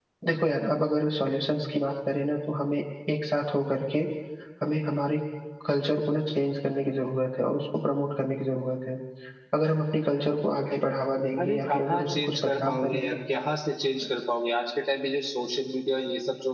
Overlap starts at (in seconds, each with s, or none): 11.4 s